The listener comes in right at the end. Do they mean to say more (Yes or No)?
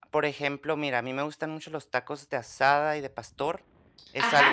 Yes